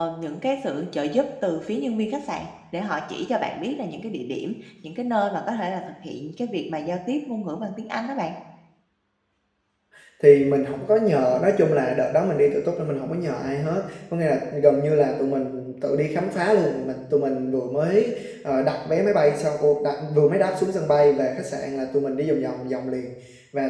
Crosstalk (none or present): none